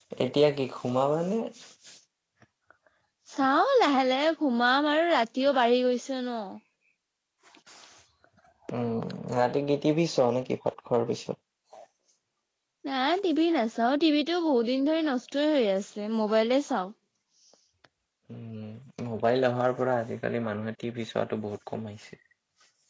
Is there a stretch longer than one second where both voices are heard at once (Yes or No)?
No